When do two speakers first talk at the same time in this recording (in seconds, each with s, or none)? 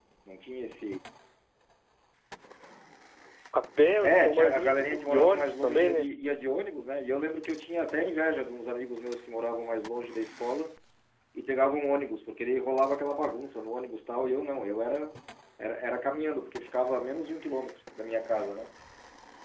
4.0 s